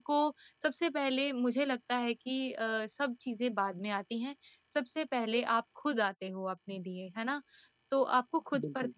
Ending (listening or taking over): listening